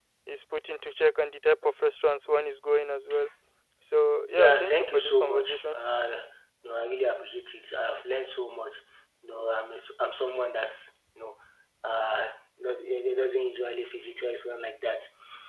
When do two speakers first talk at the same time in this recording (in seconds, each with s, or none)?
4.4 s